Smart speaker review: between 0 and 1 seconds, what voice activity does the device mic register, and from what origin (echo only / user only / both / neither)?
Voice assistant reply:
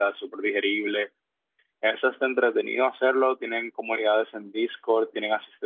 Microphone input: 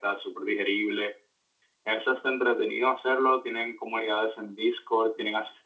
echo only